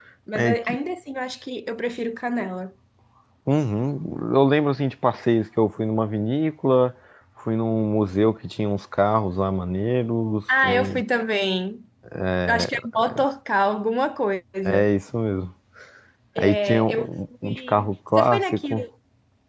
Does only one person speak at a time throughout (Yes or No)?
No